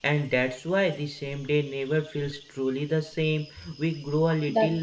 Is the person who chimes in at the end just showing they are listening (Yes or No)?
Yes